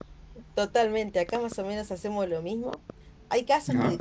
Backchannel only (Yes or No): Yes